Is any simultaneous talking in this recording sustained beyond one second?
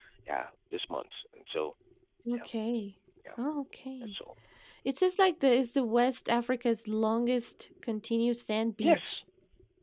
No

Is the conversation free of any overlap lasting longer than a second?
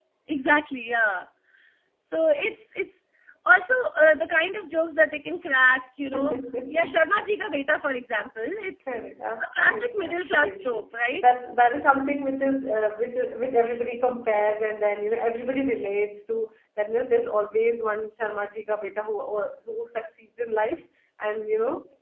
No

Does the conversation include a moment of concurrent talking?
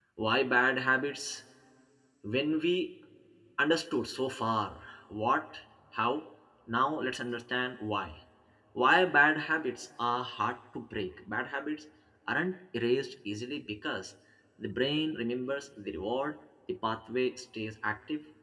No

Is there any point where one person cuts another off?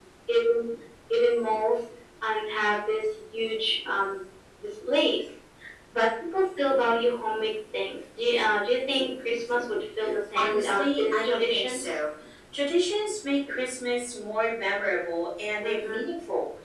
Yes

